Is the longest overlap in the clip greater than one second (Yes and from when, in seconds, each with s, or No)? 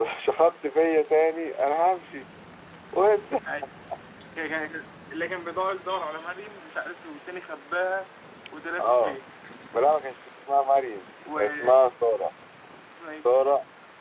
No